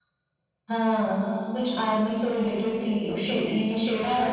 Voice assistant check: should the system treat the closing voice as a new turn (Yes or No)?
Yes